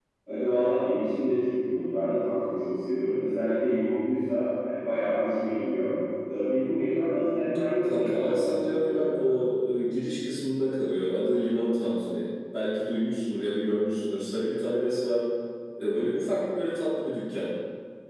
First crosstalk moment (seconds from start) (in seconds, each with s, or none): 7.8 s